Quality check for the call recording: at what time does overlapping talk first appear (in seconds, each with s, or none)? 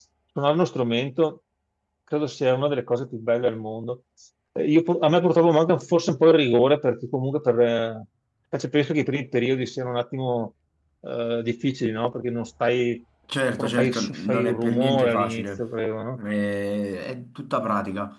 13.6 s